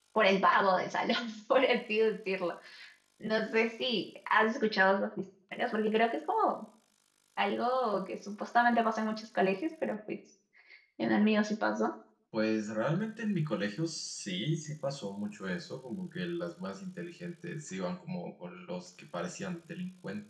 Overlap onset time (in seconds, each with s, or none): none